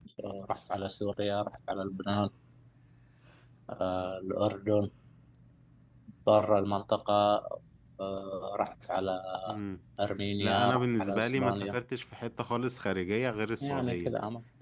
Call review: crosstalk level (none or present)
present